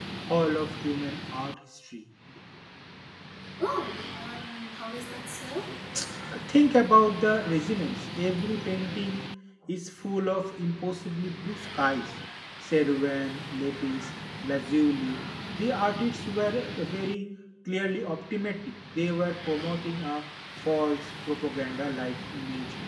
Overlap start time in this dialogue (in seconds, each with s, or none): none